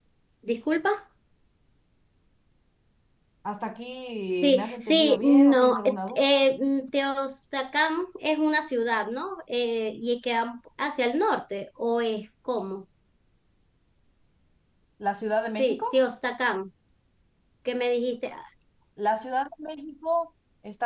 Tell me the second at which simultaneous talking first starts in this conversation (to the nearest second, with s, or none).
4 s